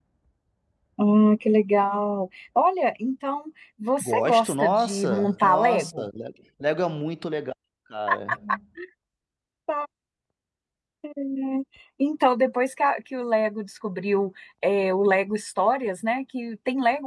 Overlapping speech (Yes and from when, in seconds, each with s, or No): Yes, from 4.0 s